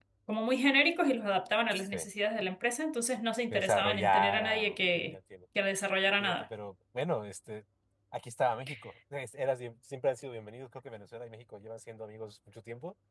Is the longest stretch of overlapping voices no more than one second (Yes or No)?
No